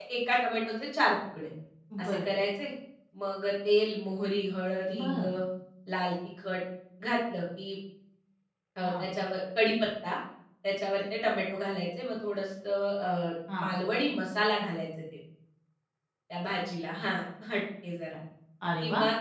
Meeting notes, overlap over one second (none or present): none